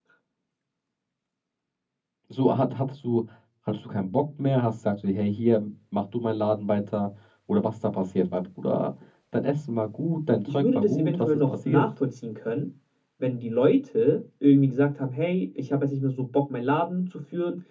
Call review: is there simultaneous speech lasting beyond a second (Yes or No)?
Yes